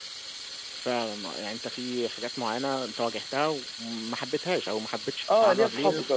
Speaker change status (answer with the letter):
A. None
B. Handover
B